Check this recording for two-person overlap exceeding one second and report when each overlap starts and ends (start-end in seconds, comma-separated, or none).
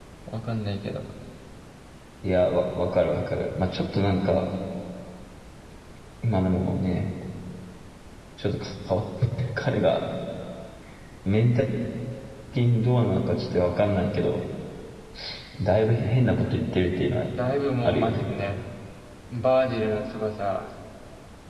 none